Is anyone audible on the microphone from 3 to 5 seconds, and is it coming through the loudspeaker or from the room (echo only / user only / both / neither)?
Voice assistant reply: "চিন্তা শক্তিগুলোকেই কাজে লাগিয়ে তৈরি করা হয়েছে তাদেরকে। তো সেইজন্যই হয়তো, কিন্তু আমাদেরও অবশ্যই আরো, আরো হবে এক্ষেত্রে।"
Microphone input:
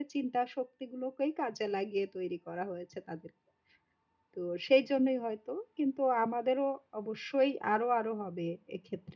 echo only